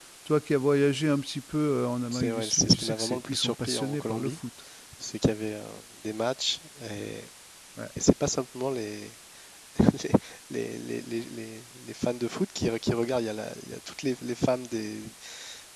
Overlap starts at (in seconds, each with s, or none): 2.1 s